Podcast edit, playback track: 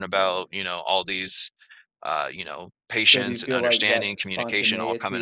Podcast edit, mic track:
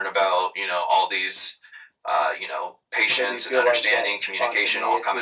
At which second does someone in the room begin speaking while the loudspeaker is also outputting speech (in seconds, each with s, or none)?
none